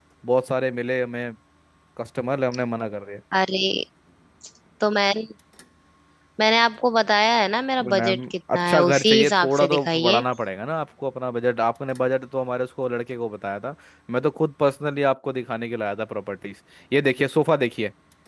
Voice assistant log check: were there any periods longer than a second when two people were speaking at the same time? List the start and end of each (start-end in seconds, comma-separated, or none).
7.8-10.2